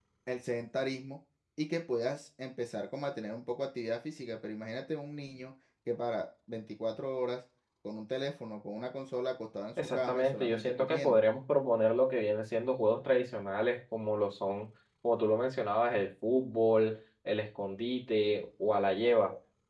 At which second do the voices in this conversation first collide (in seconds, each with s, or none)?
9.8 s